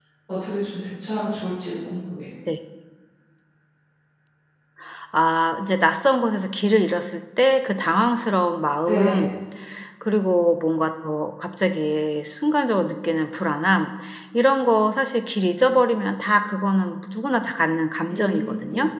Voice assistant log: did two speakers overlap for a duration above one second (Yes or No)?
No